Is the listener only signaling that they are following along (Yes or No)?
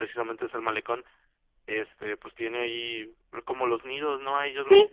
Yes